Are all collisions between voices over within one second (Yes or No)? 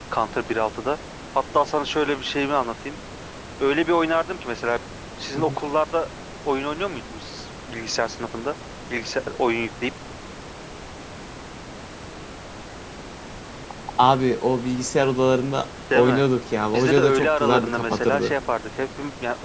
No